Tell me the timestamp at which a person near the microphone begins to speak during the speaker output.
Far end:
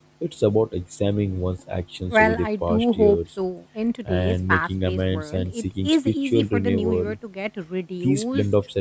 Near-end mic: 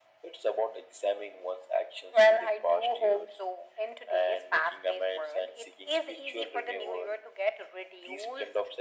none

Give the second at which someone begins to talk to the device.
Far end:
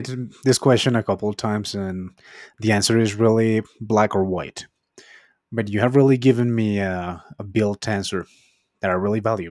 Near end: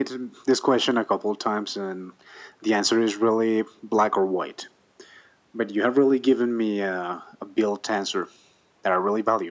none

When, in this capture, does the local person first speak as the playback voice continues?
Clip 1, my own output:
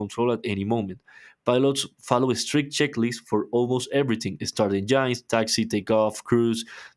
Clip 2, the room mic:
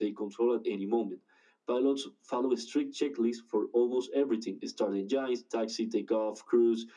none

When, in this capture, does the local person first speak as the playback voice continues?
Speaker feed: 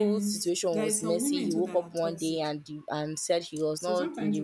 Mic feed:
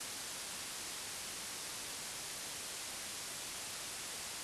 none

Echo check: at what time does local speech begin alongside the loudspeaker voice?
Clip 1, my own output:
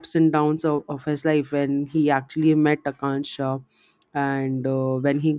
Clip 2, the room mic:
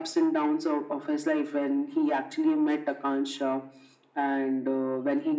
none

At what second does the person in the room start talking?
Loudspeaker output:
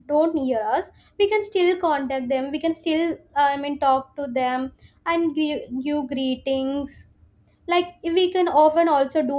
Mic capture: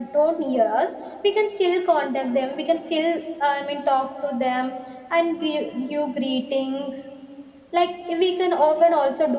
none

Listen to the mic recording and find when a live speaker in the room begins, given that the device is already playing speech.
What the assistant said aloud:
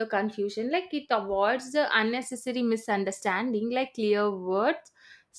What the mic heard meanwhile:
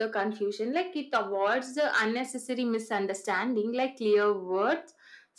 none

